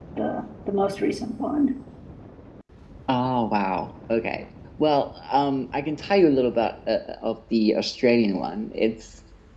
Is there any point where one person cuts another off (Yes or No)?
No